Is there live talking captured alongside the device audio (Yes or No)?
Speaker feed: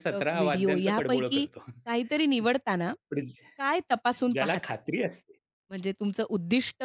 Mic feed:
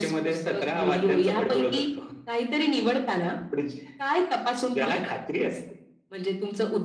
No